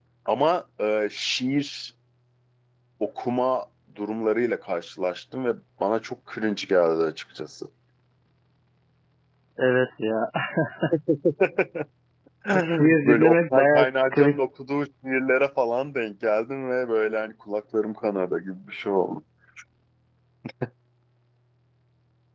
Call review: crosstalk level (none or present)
present